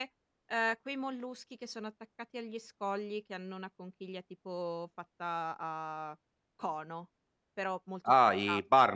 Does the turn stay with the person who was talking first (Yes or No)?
No